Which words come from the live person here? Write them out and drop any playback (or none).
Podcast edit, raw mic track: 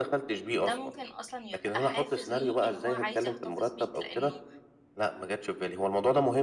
ده ممكن أصلًا يبقى حافز ليه إن هو عايز يحتفظ بيك، لإنه